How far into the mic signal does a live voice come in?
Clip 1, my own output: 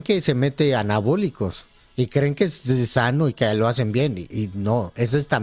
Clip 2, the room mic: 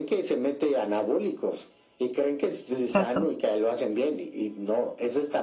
3 s

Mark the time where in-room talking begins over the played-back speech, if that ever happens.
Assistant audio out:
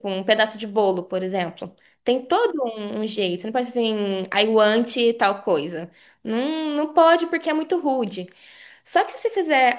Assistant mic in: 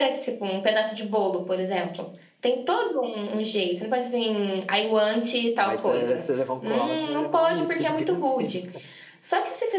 6 s

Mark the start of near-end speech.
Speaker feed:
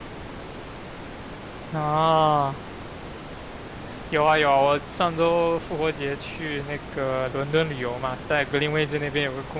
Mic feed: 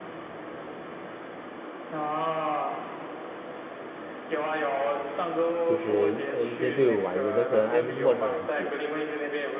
6 s

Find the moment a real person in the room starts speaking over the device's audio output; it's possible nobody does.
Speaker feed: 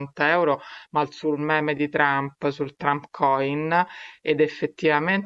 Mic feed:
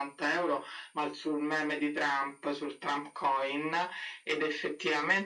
none

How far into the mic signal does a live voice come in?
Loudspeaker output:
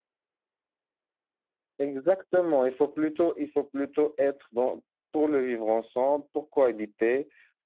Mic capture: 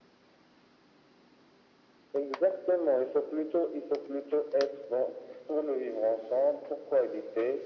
none

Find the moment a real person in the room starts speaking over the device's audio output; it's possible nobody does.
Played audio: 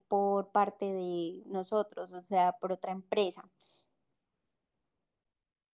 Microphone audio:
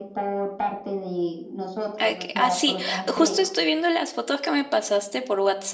2 s

